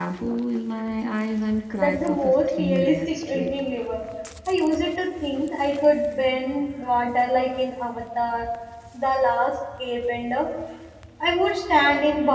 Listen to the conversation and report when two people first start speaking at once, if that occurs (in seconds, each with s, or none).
1.8 s